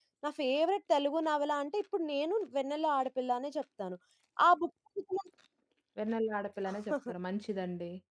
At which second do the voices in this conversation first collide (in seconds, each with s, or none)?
none